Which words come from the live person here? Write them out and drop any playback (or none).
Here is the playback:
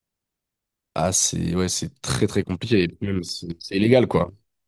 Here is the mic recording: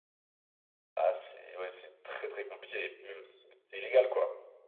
none